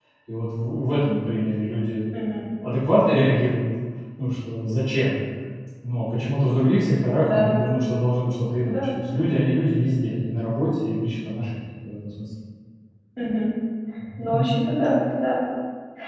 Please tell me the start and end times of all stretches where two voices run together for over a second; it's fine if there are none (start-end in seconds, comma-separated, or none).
none